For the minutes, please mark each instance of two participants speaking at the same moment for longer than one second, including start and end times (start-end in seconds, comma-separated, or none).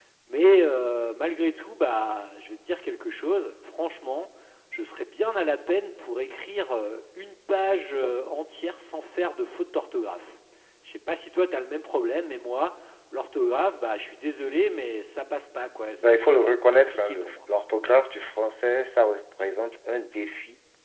16.0-17.3